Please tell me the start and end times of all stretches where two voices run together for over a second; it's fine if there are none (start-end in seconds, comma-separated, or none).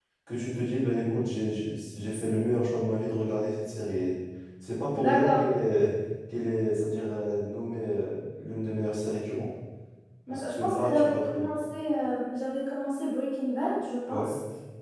10.3-11.5